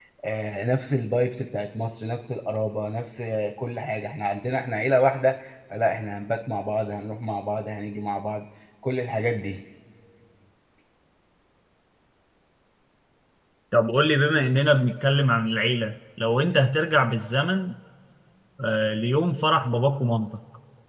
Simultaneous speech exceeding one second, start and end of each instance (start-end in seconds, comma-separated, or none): none